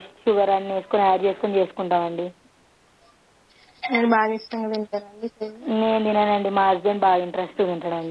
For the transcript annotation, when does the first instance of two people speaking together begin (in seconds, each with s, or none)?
none